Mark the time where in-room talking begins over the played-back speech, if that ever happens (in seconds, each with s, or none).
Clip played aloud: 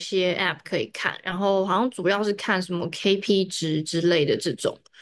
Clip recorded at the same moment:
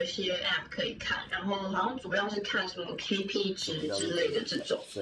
3.6 s